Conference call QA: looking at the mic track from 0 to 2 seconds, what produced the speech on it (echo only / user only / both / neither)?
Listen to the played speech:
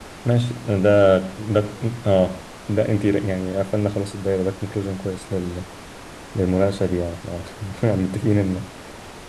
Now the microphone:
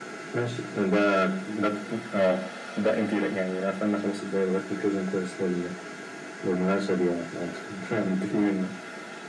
echo only